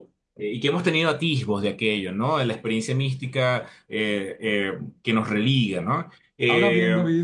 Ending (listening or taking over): taking over